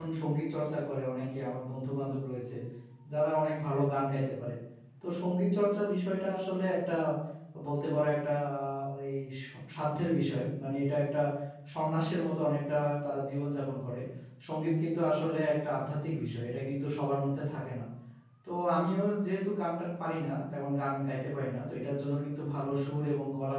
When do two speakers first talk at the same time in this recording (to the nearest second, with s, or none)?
none